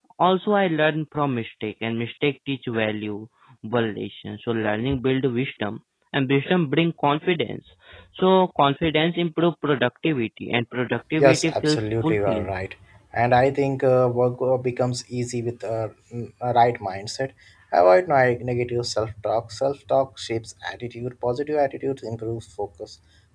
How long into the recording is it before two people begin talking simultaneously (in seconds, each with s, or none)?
11.2 s